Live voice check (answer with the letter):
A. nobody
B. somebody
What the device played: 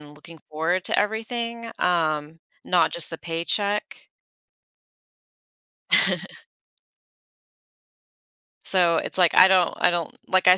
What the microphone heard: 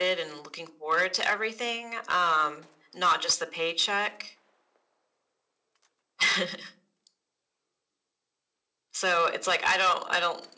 A